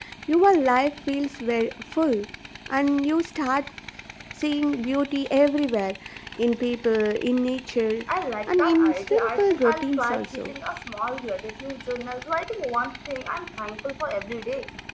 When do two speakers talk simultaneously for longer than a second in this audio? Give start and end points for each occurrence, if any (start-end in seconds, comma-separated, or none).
8.5-10.5